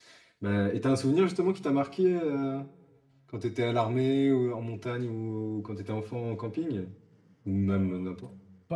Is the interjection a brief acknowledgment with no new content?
No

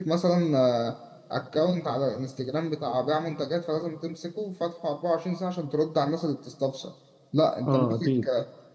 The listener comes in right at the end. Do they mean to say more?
No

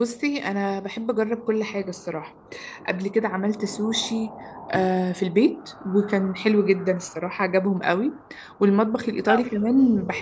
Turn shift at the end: No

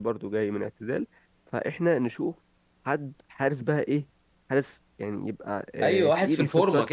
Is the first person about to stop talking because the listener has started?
Yes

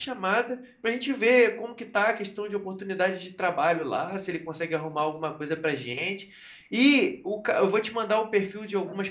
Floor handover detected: No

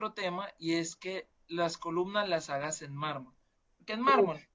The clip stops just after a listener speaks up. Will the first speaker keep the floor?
Yes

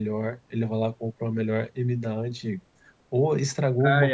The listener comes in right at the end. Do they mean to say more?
No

